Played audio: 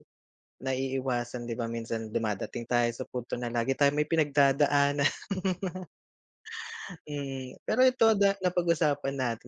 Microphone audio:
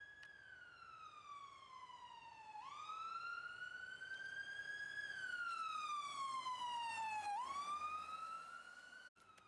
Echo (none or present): none